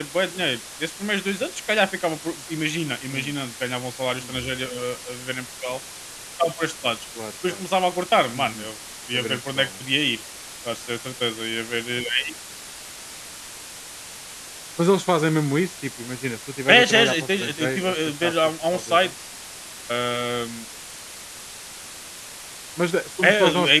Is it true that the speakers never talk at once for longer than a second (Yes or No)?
No